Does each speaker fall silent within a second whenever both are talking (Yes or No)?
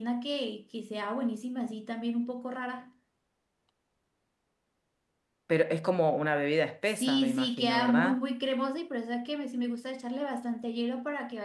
No